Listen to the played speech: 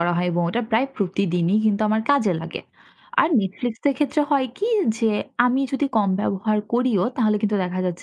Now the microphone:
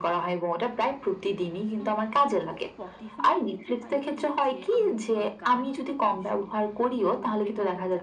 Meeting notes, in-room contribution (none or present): present